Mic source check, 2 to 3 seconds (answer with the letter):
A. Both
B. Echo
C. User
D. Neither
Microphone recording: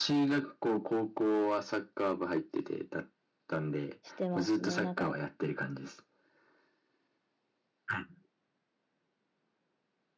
B